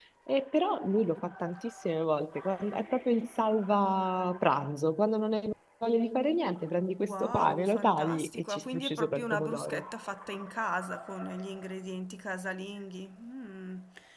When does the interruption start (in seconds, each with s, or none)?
7.0 s